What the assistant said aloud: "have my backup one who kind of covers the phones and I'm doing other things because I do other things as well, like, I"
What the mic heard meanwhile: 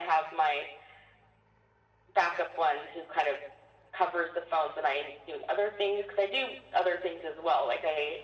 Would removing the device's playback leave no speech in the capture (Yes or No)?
Yes